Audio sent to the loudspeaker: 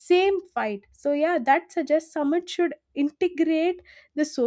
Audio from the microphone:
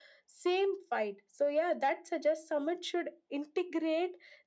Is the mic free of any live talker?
Yes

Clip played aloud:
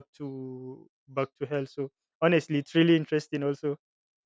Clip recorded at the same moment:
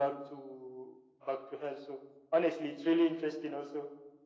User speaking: No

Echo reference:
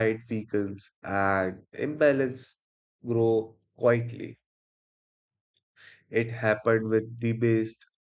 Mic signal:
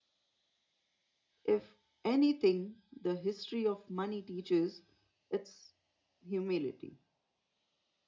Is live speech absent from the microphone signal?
No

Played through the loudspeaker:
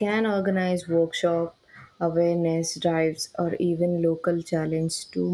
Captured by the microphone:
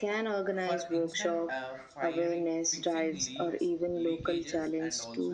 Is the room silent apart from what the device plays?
No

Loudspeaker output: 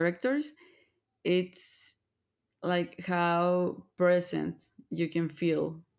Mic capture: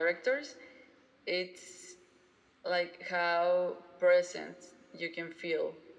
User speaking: No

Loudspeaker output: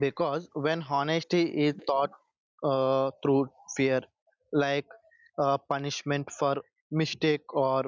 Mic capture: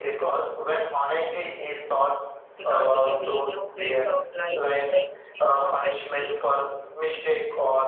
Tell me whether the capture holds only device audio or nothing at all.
No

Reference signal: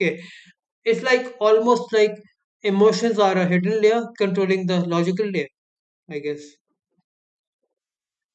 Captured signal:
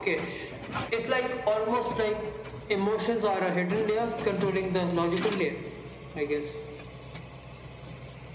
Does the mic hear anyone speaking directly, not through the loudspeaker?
No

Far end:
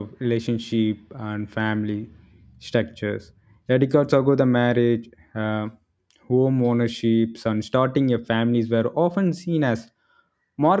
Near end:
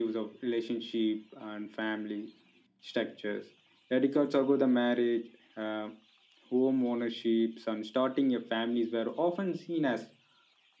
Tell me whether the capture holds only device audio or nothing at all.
Yes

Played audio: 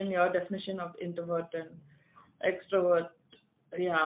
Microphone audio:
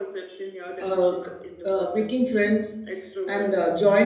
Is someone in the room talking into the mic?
Yes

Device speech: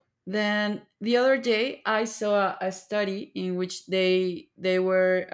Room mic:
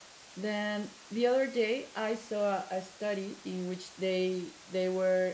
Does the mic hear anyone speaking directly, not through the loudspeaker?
No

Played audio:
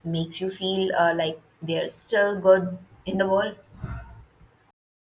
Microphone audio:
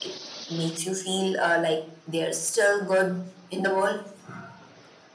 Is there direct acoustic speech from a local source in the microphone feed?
No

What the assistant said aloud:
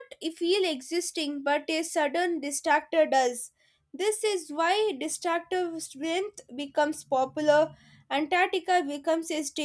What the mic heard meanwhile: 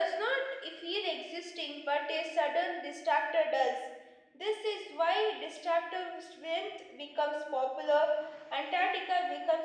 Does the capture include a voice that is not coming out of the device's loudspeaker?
No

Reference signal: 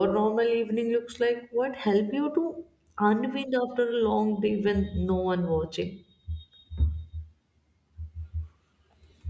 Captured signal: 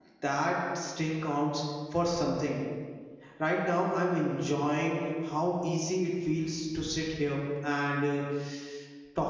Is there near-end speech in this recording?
Yes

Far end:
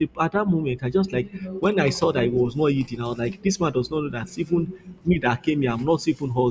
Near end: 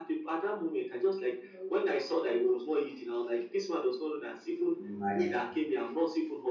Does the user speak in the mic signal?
Yes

